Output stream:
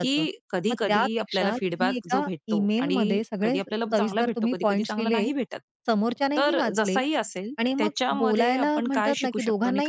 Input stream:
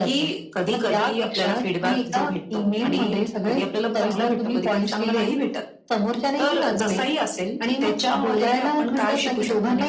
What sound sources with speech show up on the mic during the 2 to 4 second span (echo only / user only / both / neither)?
echo only